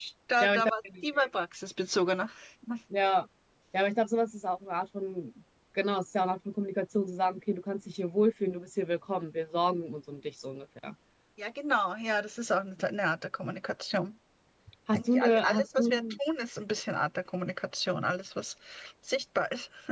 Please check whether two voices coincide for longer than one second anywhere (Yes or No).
Yes